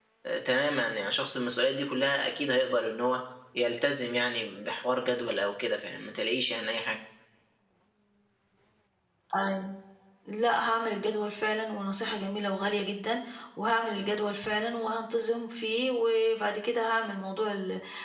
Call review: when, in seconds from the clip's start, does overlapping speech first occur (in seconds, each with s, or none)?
none